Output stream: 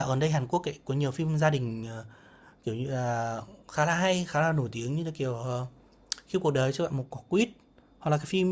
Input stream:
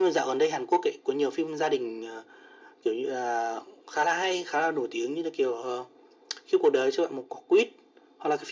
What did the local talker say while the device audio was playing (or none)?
none